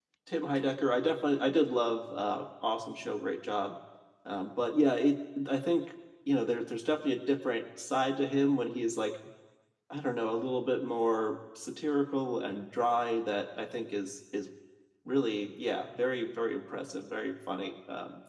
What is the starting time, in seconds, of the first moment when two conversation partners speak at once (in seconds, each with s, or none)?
none